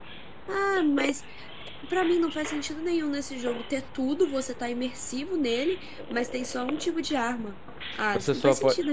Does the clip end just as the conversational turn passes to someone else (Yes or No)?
Yes